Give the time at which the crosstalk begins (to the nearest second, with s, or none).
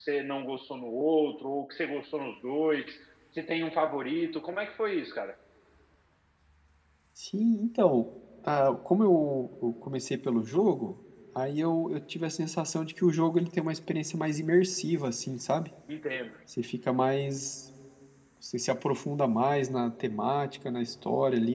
none